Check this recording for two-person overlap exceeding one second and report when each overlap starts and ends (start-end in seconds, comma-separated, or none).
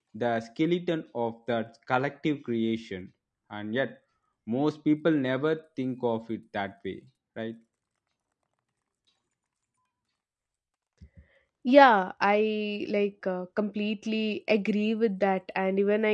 none